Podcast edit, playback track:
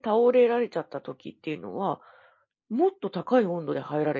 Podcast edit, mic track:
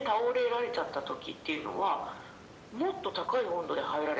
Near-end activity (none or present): none